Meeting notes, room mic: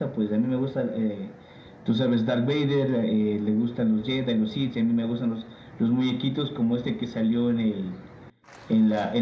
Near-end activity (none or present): none